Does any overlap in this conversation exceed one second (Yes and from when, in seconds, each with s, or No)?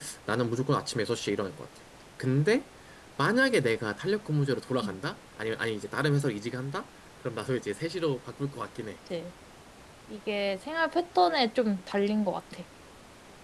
No